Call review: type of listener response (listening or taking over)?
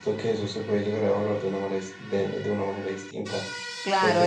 taking over